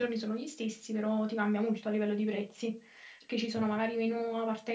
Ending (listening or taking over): listening